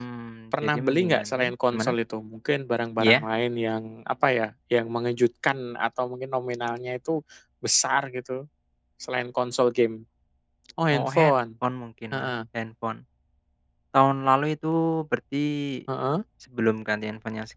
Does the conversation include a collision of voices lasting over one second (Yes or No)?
Yes